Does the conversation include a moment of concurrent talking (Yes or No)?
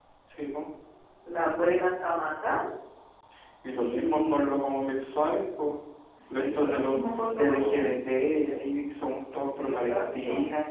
Yes